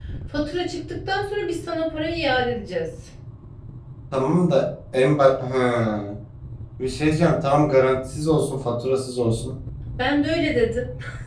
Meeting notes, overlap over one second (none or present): none